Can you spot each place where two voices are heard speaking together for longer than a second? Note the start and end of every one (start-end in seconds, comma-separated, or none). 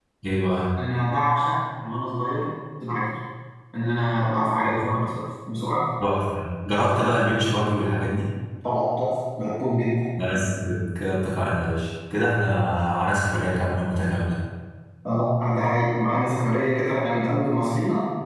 none